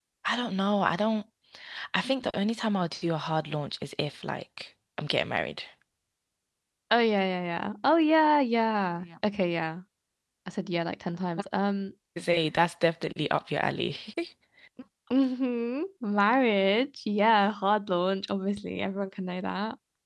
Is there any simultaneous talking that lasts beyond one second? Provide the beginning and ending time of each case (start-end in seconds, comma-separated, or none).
none